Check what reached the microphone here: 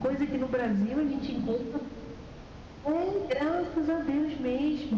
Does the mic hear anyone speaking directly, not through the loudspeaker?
No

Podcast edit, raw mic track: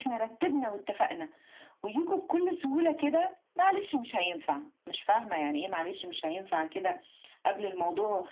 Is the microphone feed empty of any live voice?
Yes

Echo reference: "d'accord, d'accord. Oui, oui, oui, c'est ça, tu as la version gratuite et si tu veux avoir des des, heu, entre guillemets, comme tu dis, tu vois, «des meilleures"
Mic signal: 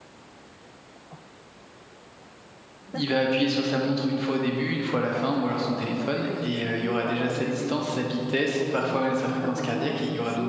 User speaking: Yes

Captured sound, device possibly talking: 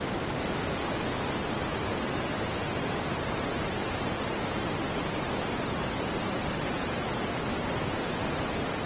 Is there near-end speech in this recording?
No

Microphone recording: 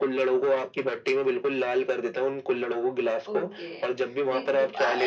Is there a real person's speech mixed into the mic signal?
Yes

